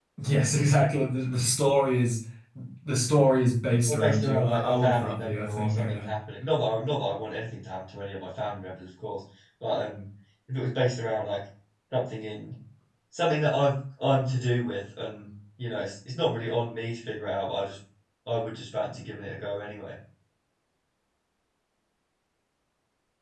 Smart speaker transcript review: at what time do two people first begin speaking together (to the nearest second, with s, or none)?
4 s